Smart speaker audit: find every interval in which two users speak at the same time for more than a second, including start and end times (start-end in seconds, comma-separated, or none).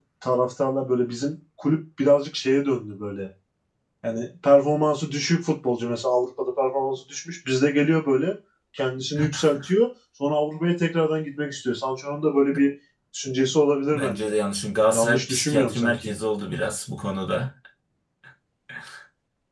14.9-16.1